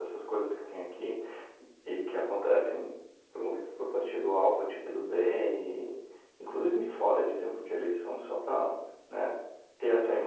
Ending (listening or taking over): listening